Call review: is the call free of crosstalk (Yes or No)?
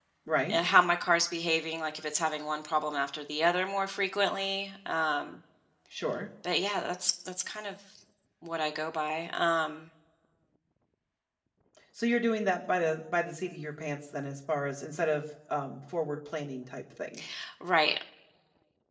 Yes